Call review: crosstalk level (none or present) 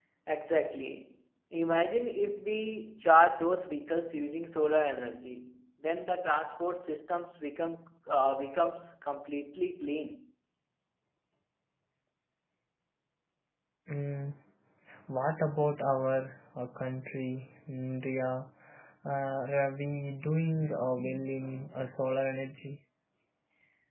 none